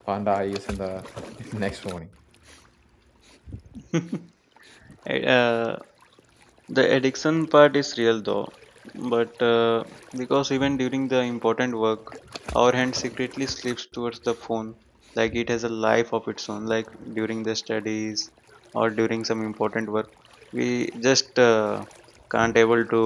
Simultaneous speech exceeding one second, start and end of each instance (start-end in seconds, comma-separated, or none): none